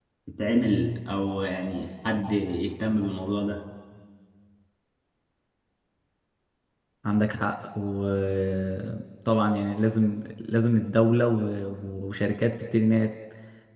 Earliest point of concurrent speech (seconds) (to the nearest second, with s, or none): none